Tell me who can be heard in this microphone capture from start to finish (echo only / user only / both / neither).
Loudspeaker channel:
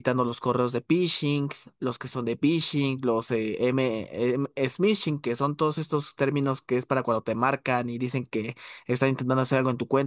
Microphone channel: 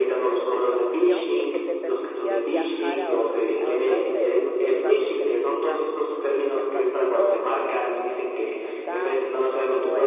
both